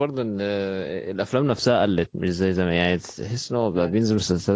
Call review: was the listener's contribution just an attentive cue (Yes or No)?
Yes